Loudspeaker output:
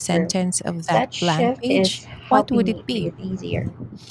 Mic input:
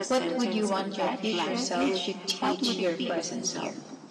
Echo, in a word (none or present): present